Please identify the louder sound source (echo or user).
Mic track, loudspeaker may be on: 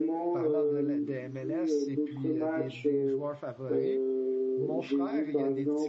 echo